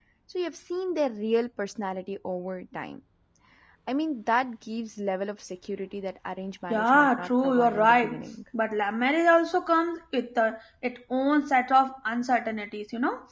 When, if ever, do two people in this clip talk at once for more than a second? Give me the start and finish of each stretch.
6.7-8.3

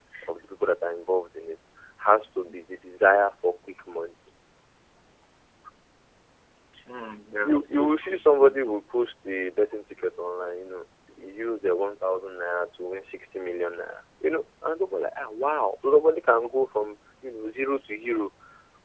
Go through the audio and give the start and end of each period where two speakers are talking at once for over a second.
7.4-8.8

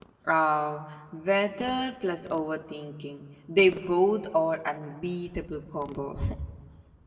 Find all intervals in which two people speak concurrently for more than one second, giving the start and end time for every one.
none

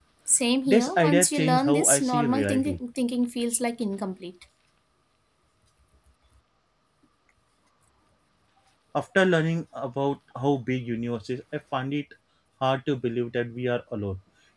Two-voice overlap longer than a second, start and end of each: 0.7-2.8

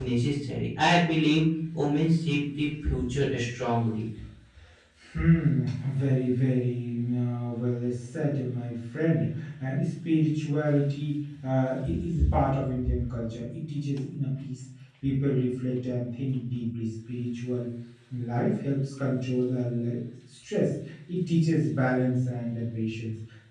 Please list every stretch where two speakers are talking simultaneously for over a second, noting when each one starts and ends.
none

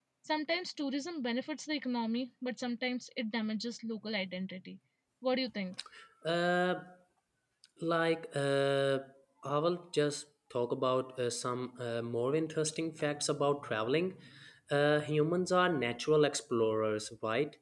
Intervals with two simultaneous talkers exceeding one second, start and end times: none

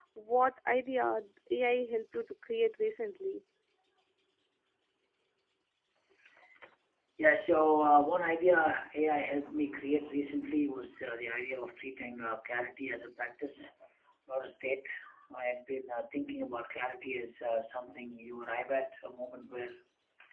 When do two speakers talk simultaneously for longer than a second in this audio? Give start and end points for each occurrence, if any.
none

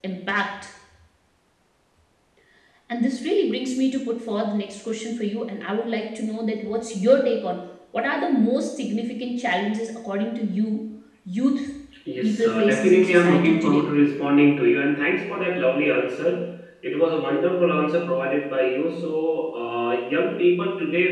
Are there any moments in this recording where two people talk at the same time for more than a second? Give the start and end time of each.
12.2-13.9

